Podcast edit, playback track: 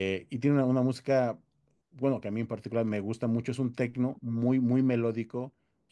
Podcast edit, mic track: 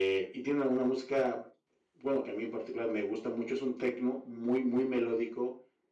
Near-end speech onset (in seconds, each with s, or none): none